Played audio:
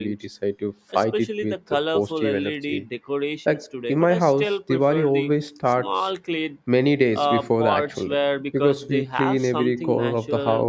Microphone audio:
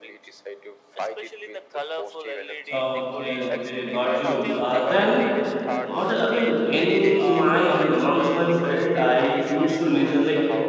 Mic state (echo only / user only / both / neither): both